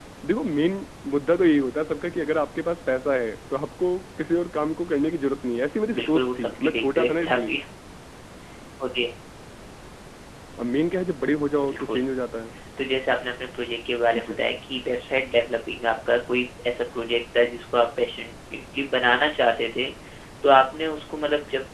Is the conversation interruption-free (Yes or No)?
No